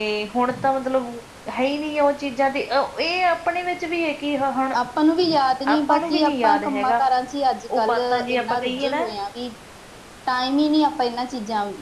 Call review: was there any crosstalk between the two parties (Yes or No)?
Yes